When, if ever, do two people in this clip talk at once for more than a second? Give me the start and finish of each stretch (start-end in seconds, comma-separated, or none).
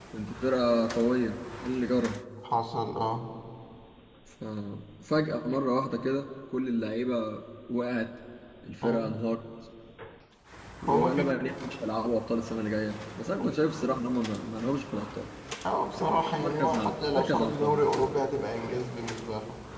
16.4-17.9